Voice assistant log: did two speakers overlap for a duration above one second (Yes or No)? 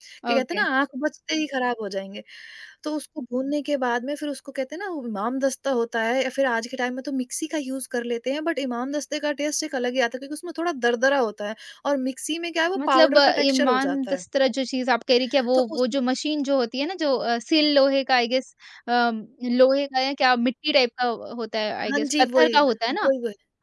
Yes